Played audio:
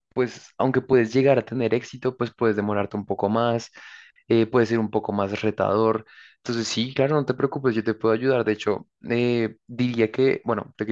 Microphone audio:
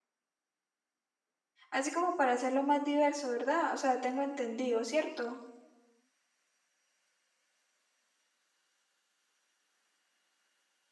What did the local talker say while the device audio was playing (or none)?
así como para hacerlo más diverso, ¿verdad? O sea, tengo entendido, ¿cierto?